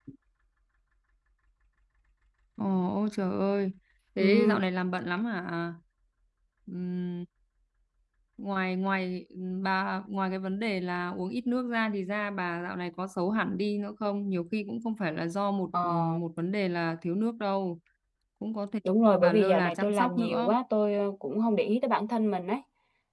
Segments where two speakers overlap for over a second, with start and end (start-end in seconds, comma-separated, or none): 19.2-20.5